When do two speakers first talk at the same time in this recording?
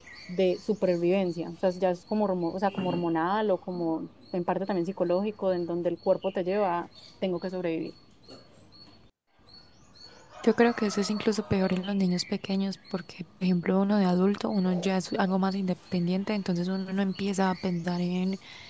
none

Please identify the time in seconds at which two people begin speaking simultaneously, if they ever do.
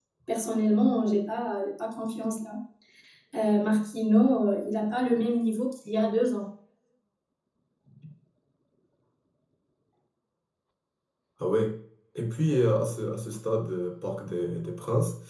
none

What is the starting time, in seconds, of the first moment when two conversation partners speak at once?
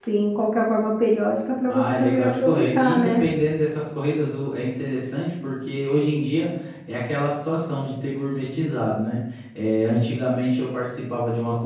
1.7 s

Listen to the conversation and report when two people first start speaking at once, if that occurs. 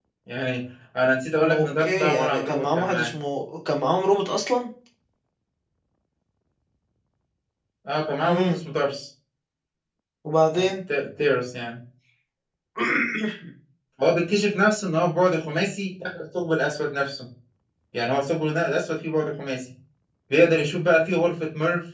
1.4 s

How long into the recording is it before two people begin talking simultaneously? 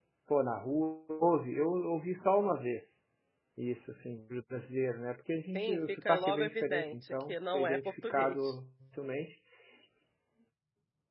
5.5 s

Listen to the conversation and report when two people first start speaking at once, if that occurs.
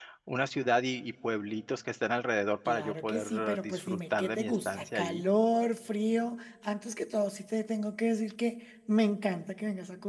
2.6 s

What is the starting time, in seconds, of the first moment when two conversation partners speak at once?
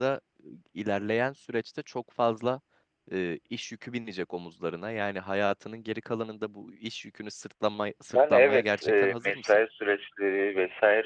8.1 s

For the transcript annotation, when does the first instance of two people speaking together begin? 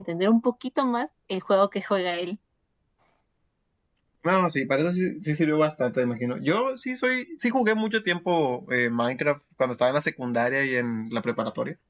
none

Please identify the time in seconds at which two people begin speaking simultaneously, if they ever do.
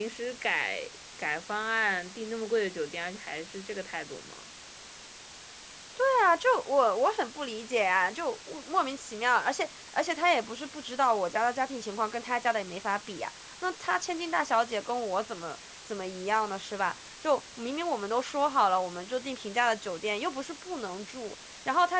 none

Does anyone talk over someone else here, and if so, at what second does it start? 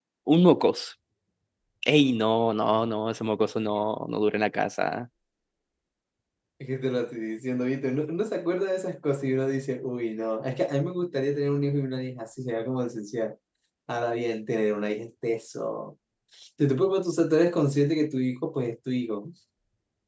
none

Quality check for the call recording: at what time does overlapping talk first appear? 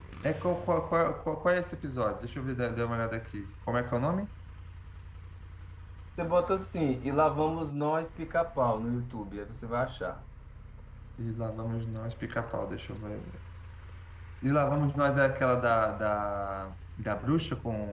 none

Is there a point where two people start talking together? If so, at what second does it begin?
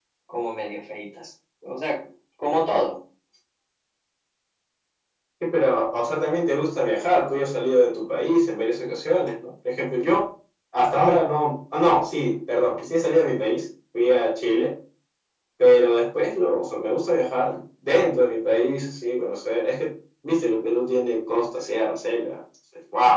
none

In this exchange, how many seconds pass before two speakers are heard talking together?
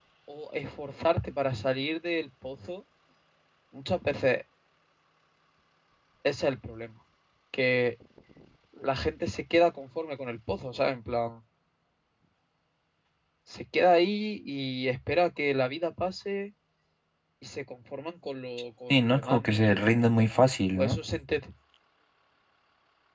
18.9 s

